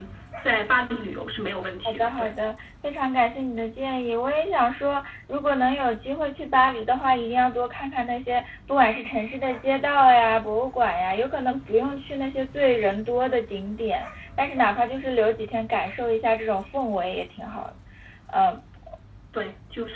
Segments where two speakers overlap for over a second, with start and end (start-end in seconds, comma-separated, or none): none